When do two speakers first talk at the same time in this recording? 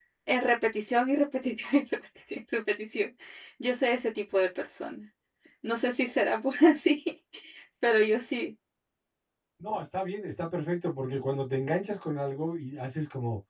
none

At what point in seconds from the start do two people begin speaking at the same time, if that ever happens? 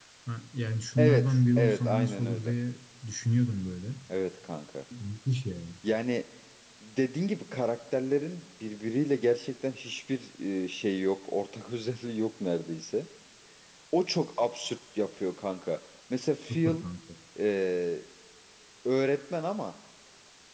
1.0 s

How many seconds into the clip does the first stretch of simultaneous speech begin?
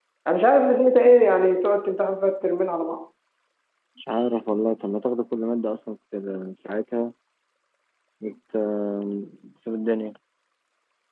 none

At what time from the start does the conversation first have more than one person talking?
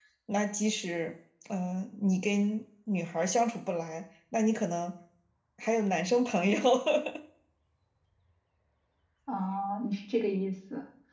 none

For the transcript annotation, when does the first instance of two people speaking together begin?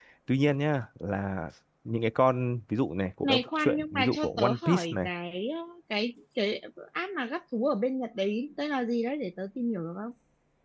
3.2 s

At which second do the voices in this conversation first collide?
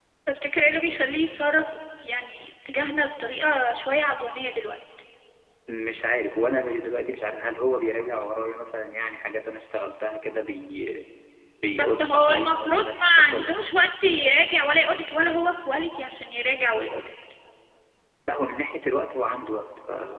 11.8 s

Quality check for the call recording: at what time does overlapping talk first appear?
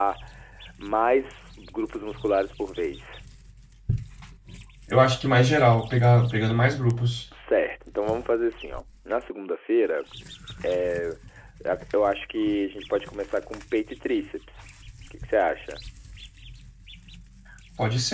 none

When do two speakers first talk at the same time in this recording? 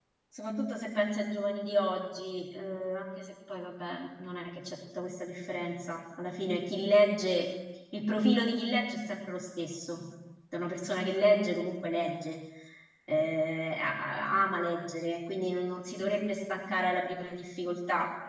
none

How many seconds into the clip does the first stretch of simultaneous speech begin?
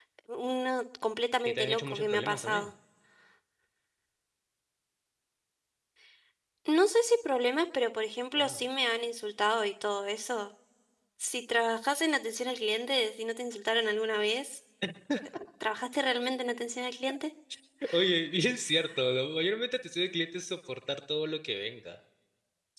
1.4 s

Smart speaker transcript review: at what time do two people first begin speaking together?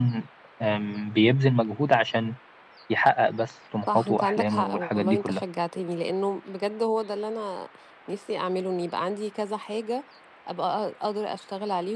3.9 s

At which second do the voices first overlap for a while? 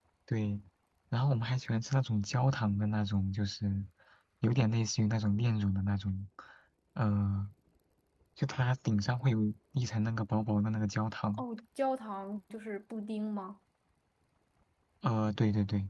none

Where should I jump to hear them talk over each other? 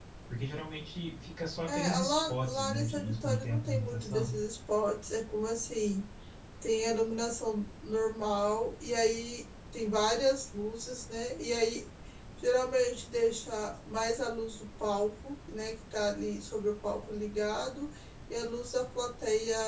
1.7 s

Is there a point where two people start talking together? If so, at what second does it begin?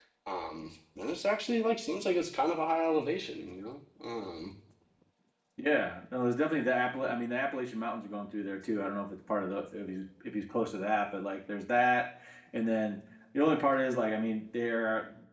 none

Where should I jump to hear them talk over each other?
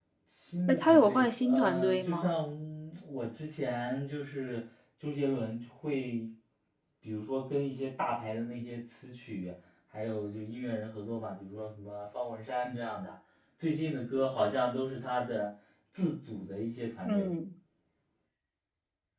0.7 s

